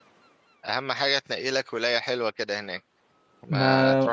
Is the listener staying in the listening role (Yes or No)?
Yes